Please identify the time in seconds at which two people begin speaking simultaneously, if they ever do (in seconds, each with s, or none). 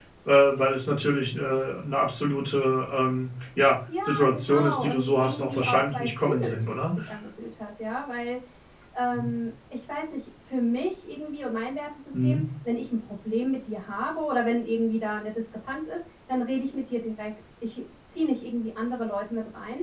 3.9 s